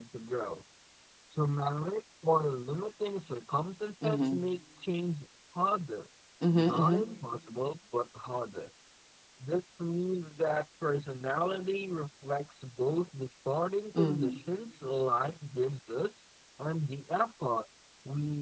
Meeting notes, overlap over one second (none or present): none